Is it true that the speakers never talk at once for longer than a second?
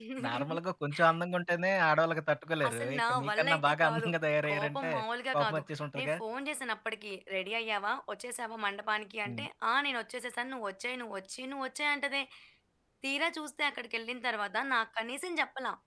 No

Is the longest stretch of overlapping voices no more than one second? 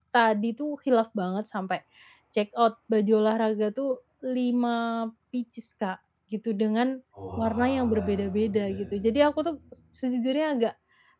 No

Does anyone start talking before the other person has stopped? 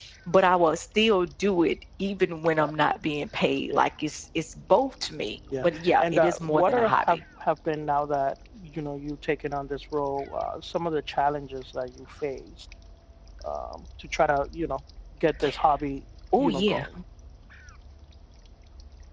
Yes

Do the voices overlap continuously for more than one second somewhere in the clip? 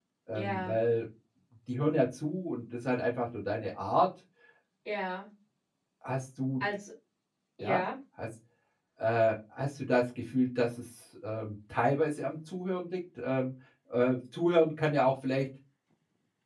No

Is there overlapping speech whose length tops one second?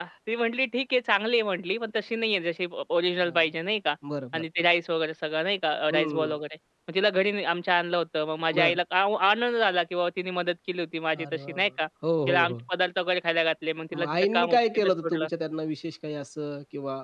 Yes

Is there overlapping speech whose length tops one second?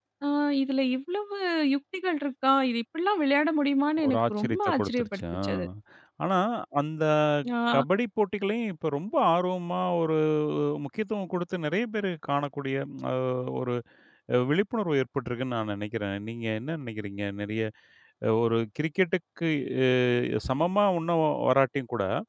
Yes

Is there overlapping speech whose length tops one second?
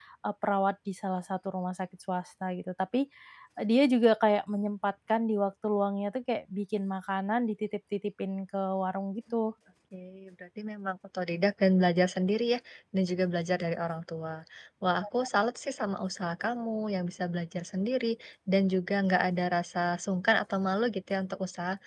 No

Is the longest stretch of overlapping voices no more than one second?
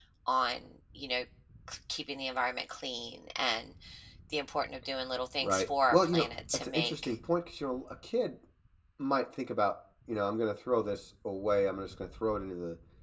No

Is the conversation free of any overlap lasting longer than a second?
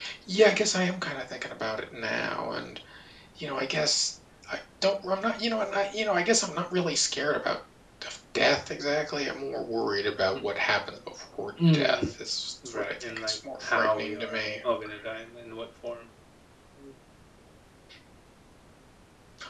No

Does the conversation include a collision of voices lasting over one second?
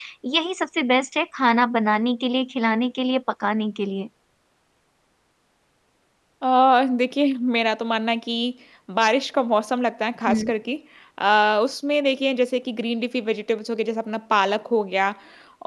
No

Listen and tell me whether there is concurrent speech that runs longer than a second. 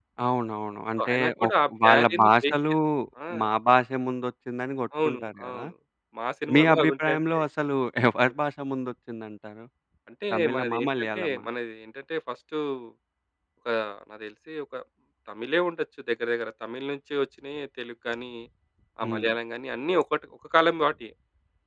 Yes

